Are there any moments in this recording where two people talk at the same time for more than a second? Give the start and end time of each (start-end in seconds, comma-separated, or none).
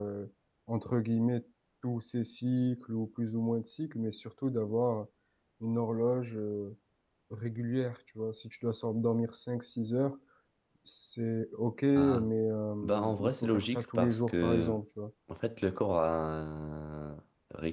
12.8-14.8